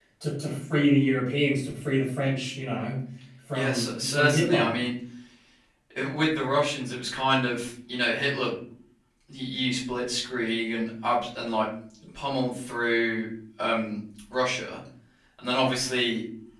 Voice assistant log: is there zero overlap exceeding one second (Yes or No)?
No